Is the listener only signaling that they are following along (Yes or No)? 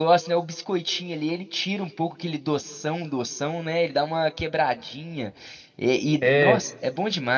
Yes